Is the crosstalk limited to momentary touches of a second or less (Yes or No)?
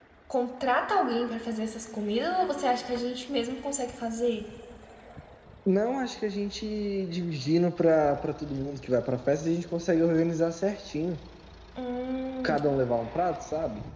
Yes